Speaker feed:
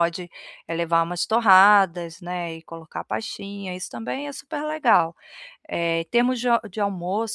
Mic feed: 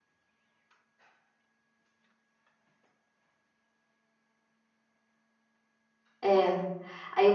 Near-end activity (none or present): present